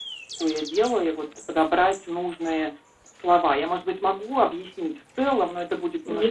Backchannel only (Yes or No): No